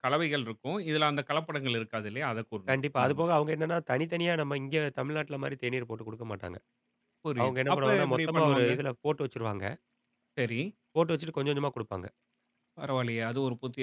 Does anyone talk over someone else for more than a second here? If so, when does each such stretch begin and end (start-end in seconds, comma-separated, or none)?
7.4-8.7